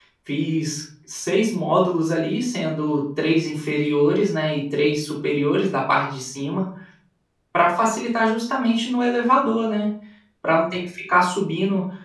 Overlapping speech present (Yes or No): No